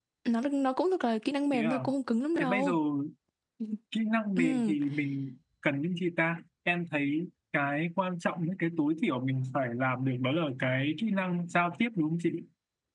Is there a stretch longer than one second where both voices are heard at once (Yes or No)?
No